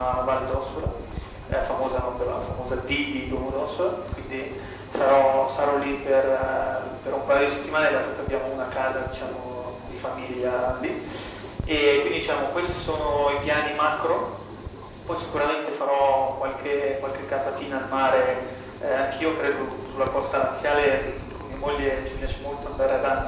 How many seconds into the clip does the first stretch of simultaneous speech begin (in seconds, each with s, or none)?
none